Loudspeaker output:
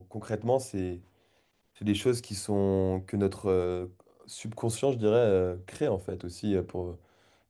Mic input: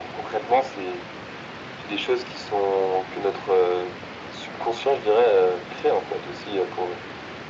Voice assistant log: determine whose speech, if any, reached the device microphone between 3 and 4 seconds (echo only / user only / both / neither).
echo only